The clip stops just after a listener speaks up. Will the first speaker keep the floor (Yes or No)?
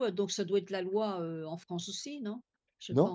No